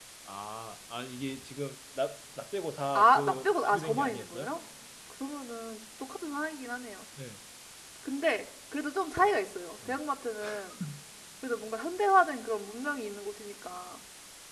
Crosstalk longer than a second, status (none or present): present